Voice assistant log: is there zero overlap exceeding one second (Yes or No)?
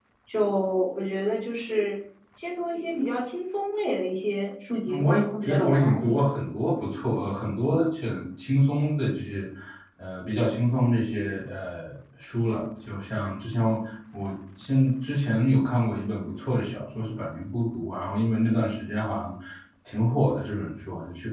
No